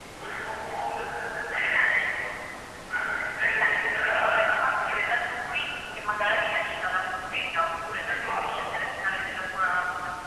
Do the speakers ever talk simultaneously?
Yes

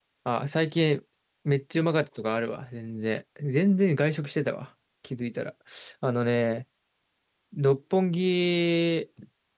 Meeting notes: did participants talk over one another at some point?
No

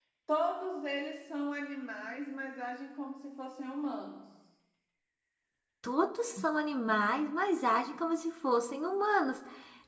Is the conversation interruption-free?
Yes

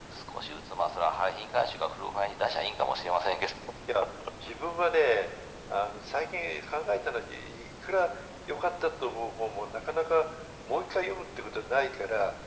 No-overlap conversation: Yes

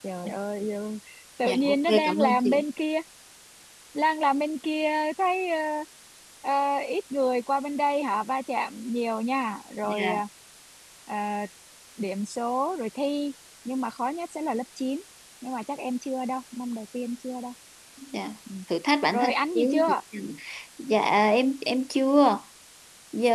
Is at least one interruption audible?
Yes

